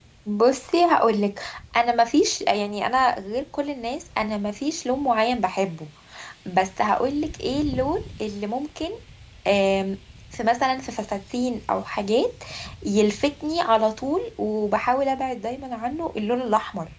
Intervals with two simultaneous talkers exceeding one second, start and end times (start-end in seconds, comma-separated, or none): none